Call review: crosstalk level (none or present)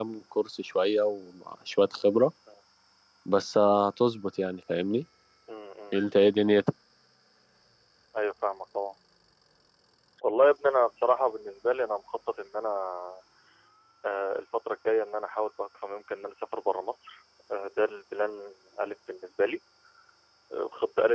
none